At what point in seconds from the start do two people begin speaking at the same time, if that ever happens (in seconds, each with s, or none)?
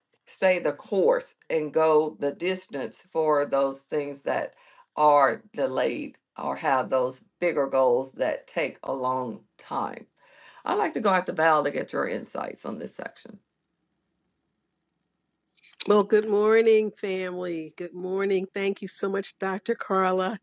none